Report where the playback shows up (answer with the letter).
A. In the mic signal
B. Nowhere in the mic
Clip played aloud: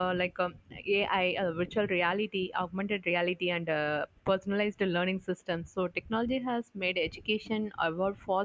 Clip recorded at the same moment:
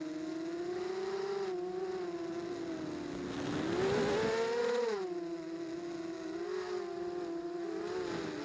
B